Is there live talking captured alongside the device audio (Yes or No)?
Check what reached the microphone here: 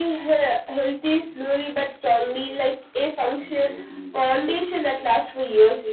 Yes